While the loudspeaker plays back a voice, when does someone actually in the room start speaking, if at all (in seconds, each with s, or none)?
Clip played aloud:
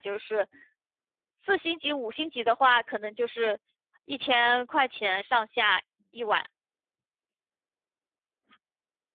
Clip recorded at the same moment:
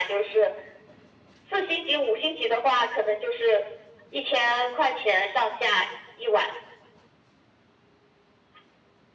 none